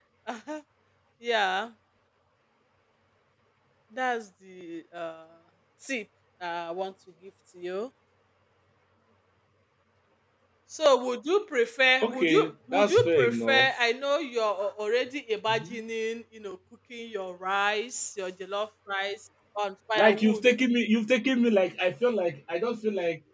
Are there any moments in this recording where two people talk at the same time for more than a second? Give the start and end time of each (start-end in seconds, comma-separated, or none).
12.0-13.7